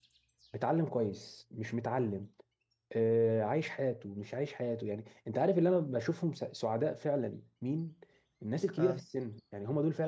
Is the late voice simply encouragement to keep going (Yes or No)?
Yes